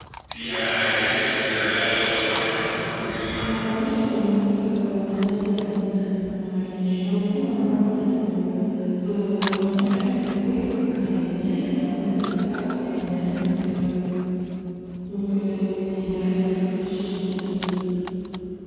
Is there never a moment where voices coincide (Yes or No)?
Yes